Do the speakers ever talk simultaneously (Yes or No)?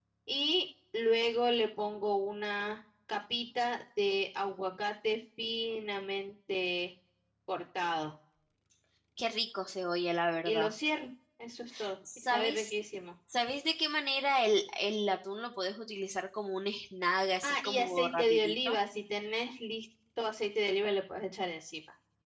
Yes